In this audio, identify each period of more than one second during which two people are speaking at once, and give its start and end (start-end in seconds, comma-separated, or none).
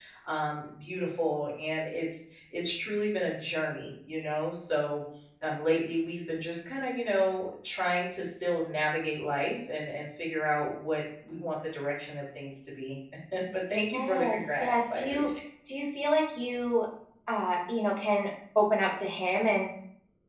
13.9-15.3